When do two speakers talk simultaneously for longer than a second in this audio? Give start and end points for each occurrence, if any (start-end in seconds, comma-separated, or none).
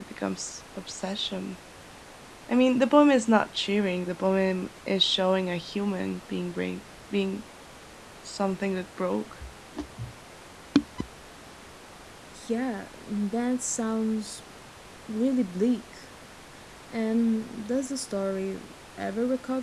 none